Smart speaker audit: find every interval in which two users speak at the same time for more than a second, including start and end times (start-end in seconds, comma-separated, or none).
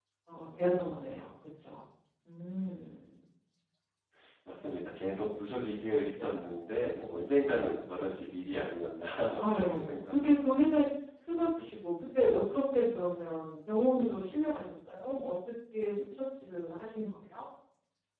9.4-10.7